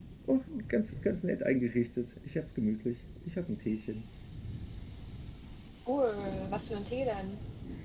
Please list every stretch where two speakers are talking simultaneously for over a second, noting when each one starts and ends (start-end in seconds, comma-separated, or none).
none